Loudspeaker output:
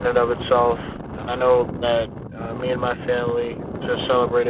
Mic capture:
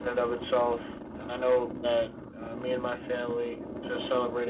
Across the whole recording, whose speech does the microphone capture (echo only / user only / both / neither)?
echo only